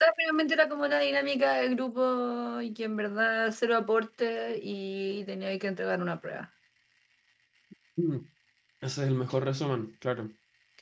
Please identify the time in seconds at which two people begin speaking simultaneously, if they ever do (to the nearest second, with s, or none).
none